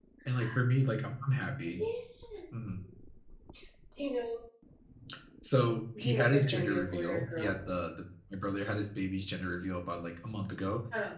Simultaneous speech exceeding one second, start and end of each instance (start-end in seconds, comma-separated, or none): 6.0-7.5